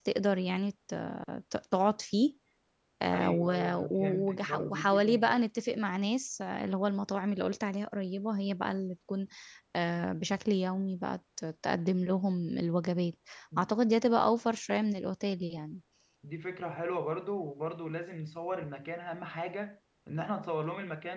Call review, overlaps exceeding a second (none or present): present